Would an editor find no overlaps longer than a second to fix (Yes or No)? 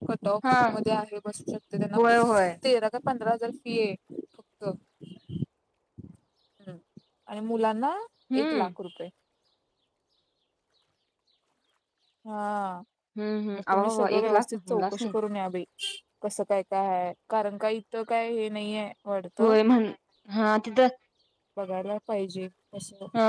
No